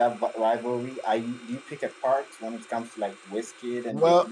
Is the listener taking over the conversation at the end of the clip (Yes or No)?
Yes